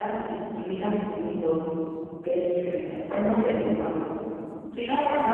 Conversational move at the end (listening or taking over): listening